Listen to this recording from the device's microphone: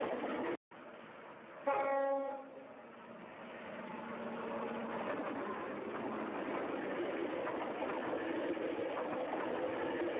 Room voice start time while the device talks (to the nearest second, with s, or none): none